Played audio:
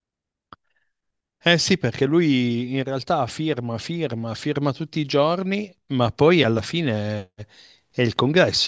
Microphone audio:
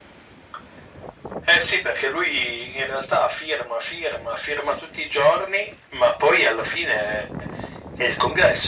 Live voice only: none

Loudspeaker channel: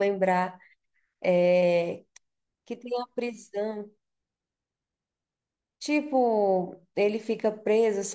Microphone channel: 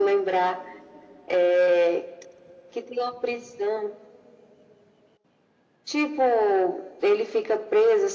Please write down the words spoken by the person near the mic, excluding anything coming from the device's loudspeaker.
none

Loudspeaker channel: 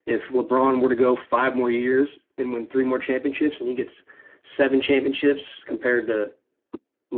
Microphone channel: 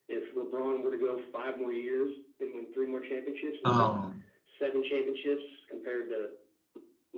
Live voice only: Um,

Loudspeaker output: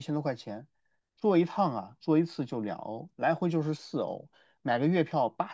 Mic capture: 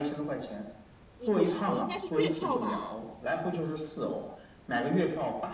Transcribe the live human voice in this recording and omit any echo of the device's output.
你不是，你应该是月票吧？

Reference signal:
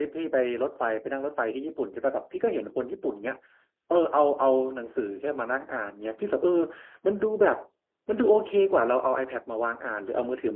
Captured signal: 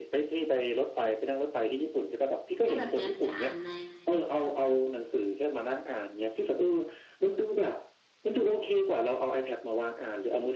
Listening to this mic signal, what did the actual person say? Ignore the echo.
ถ้าแบบเนี้ยจะอ่านใน

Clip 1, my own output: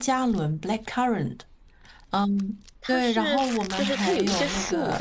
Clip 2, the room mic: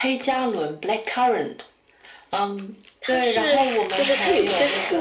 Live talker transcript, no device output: none

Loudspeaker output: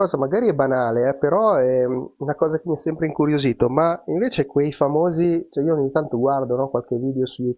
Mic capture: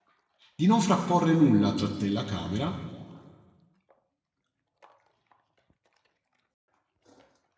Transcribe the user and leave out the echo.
di non frapporre nulla tra te e la camera,

